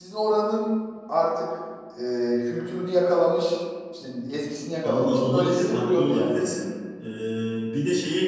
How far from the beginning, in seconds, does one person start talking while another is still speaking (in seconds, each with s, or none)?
4.8 s